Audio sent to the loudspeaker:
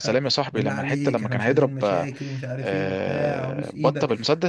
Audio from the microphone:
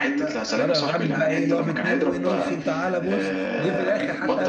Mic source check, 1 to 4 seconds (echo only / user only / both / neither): both